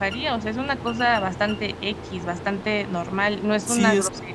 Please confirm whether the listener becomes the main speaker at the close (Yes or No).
Yes